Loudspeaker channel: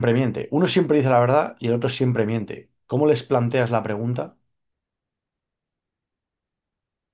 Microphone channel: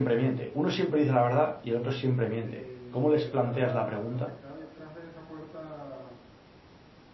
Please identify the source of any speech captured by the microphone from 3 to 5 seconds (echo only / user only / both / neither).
both